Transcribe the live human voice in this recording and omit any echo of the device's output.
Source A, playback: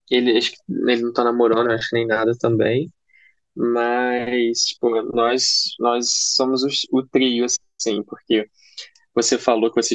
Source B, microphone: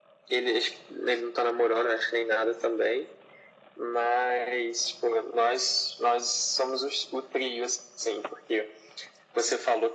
none

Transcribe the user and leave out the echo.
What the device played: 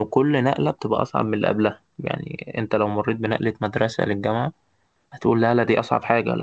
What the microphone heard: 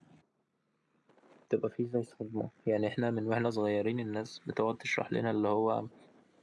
بتبقى فيه زي صدمة يعني إحنا من وإحنا صغيرين الناس بتقعد تشرح لنا اللي هو

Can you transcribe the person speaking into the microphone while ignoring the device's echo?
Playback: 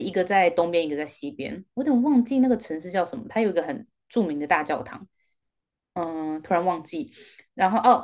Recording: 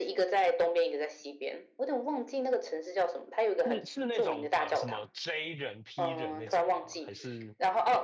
是是那种呃什么 J 人 P 人那种吗？还是

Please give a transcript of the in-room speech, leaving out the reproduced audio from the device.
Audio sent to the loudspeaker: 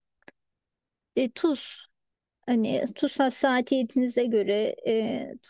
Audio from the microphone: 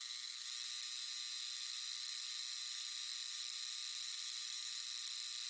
none

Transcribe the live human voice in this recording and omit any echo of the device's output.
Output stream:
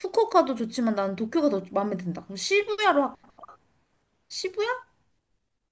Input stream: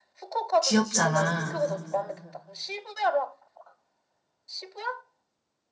귀엽잖아.

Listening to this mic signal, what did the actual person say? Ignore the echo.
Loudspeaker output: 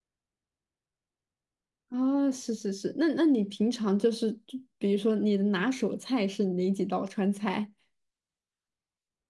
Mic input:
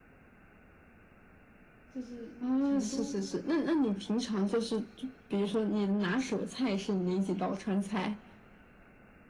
就是成都

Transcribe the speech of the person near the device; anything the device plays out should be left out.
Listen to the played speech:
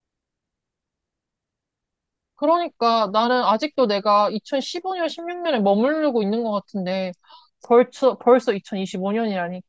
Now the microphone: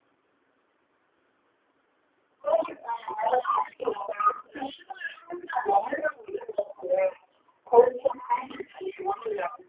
none

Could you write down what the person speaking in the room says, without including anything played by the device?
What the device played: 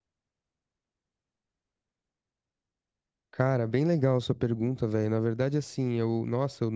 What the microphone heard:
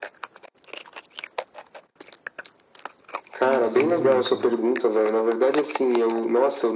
Isso, é muito massa, velho.

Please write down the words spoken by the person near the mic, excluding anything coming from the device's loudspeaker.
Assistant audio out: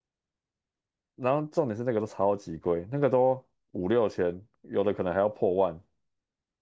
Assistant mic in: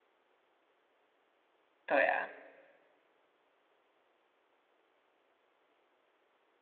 对啊，

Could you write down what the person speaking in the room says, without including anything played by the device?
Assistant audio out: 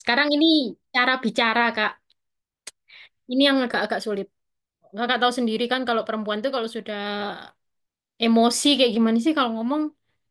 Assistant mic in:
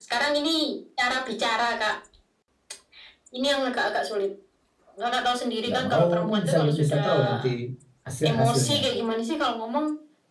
nggak mau kan bisa bisa tahu nanti hasil hasilnya

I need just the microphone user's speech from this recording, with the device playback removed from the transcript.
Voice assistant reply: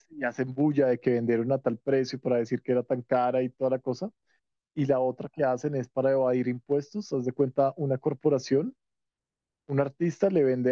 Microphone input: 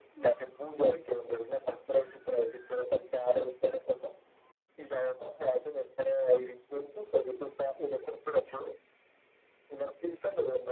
none

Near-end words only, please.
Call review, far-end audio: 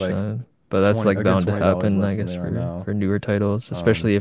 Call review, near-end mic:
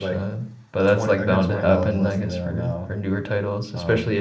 none

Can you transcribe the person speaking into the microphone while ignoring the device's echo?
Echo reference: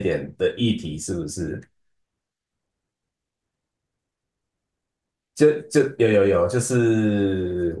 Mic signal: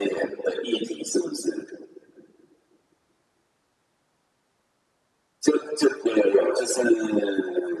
none

